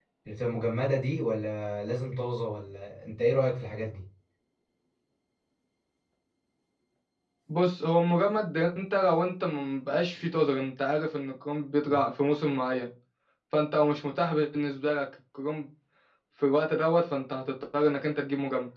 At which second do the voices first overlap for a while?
none

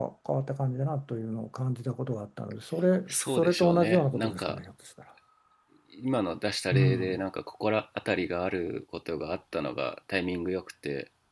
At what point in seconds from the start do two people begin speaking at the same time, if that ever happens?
3.1 s

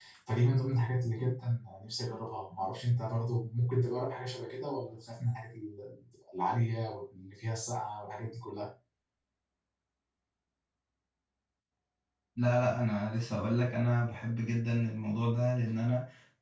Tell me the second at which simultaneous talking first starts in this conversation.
none

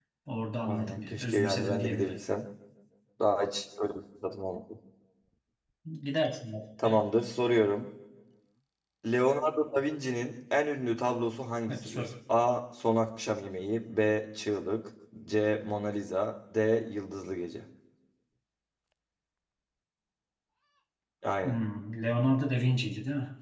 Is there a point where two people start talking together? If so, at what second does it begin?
0.6 s

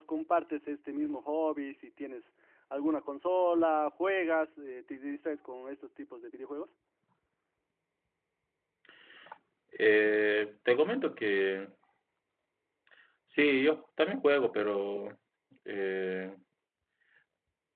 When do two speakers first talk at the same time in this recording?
none

